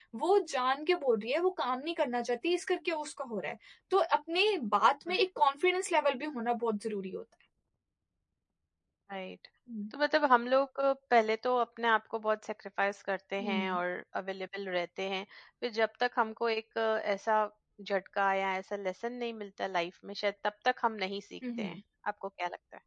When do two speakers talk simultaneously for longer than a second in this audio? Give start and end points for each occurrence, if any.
none

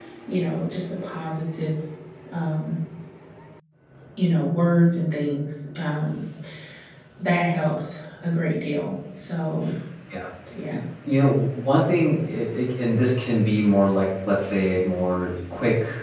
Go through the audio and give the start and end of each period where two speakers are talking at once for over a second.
none

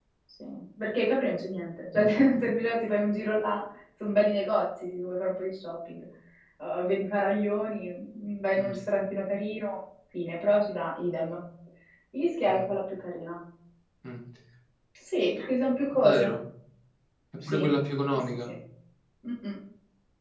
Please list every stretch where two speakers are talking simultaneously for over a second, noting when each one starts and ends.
none

